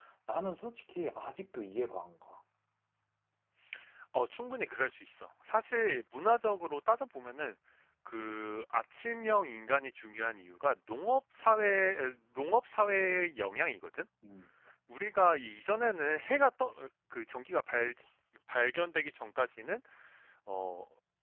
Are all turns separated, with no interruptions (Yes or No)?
Yes